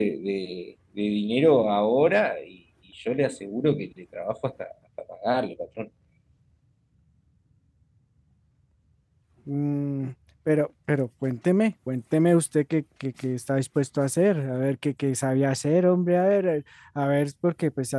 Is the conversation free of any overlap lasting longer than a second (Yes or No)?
Yes